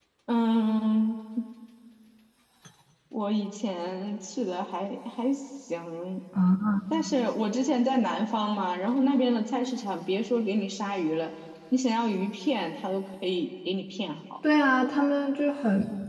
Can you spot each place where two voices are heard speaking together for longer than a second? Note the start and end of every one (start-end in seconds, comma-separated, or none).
none